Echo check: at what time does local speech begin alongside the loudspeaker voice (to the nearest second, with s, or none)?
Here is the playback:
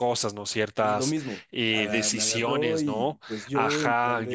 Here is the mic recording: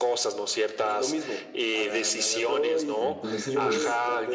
3 s